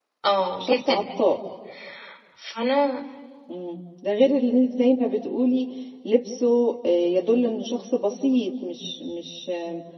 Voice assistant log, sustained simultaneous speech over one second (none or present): none